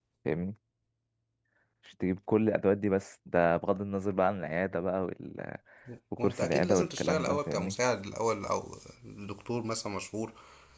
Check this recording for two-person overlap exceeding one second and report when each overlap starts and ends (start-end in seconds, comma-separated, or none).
6.2-7.8